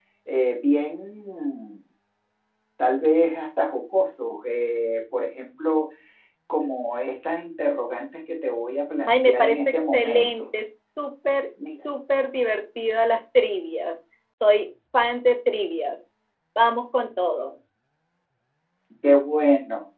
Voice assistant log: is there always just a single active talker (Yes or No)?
No